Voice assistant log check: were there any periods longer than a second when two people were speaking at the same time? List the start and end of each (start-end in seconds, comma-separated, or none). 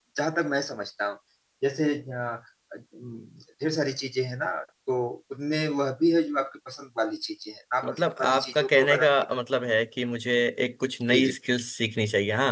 7.8-9.1